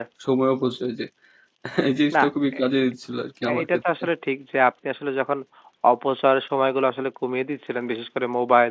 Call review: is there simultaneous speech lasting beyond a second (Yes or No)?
No